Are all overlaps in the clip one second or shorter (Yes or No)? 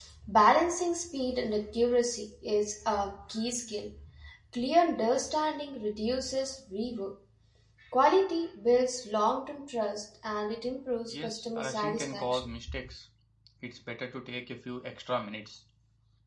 No